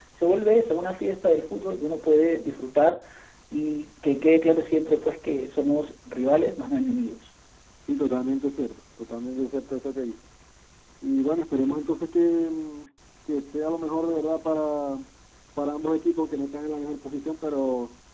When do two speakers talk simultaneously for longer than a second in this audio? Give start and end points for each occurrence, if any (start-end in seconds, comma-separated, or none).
none